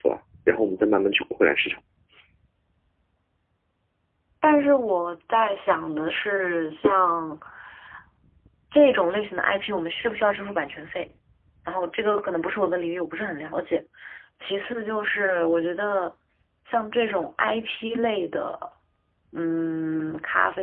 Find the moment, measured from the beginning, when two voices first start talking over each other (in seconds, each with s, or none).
none